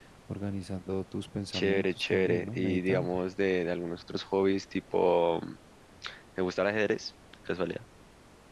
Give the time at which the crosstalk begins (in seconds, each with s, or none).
1.5 s